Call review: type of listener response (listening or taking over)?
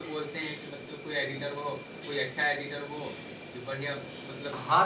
taking over